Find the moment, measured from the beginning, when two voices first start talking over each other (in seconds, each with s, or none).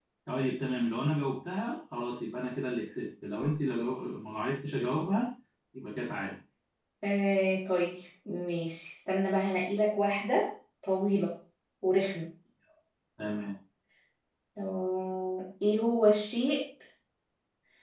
none